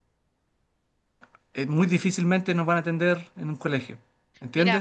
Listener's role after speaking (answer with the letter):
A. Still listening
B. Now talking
A